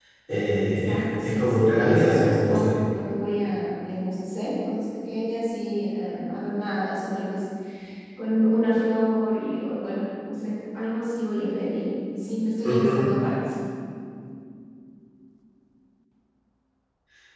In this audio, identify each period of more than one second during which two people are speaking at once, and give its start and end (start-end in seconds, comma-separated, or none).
0.6-2.7